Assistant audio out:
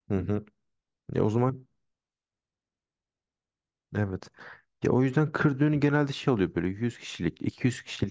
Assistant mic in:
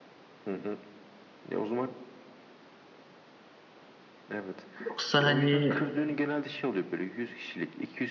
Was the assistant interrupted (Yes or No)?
Yes